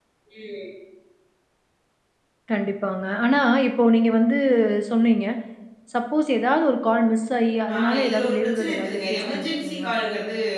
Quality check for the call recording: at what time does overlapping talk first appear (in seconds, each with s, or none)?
7.7 s